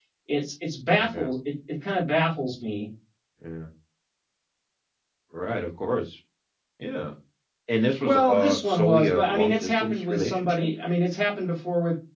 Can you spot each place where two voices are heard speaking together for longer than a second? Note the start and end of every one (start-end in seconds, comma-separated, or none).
8.0-10.7